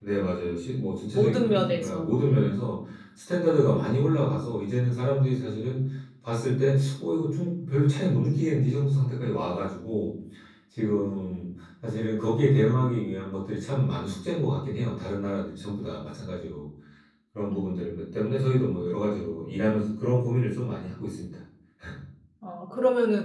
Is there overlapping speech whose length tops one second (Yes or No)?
Yes